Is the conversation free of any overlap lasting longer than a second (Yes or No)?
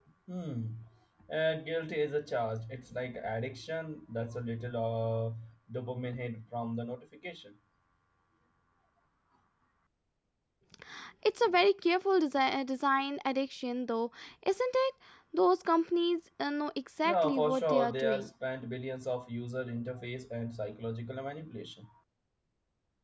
No